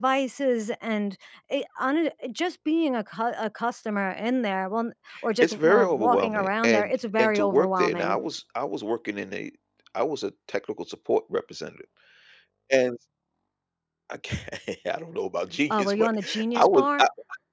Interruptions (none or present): present